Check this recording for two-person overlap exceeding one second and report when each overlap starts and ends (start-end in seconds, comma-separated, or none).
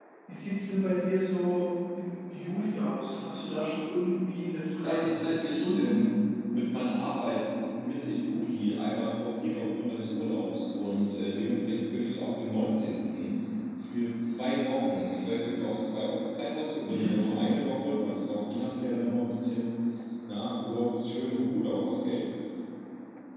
4.8-6.0